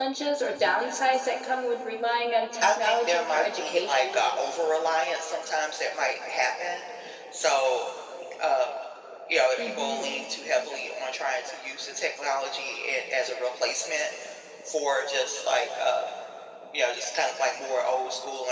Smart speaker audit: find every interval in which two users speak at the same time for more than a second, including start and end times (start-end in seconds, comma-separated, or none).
2.6-4.0